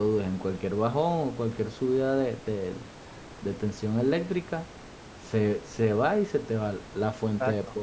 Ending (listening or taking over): listening